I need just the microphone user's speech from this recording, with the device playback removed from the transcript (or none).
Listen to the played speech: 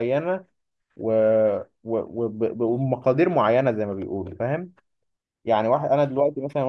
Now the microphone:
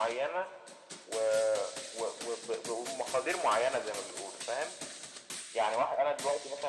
none